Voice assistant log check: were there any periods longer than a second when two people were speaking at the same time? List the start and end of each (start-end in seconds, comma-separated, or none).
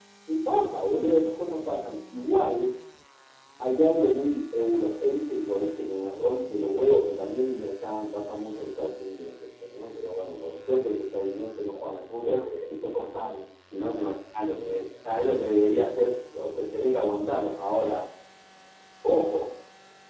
none